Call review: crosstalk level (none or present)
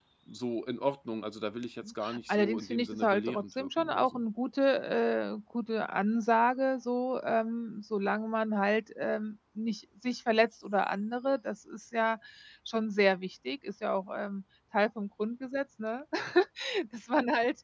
present